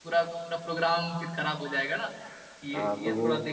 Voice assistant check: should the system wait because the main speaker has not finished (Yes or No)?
No